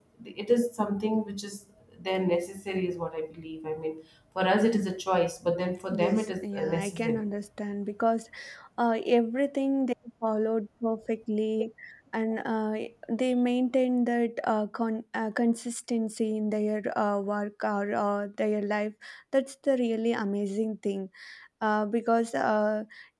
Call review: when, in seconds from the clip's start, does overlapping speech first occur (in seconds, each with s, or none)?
5.9 s